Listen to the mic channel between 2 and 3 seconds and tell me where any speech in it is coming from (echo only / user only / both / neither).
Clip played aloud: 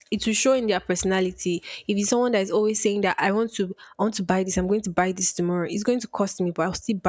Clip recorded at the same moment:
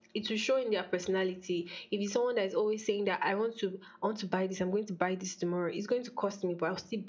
echo only